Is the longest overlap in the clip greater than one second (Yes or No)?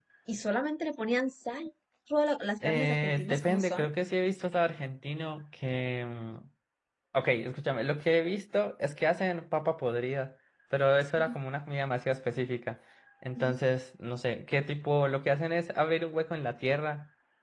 Yes